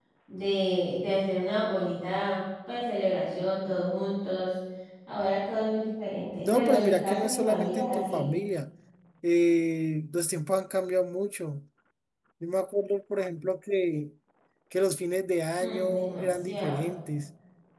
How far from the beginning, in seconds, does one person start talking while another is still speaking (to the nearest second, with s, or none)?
6 s